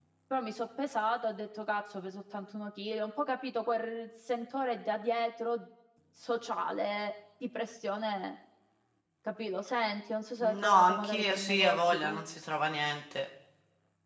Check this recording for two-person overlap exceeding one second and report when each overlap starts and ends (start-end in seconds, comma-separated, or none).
10.4-12.2